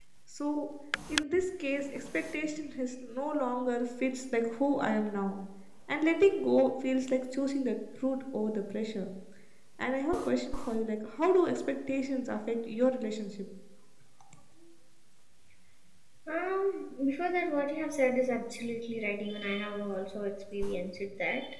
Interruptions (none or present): none